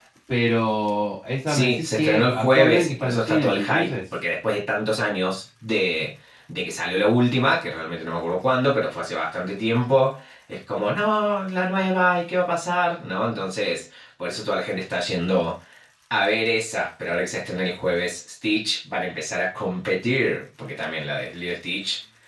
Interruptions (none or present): present